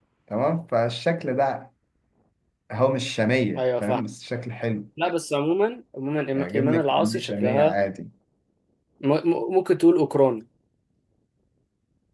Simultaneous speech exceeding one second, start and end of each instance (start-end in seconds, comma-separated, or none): 6.3-7.7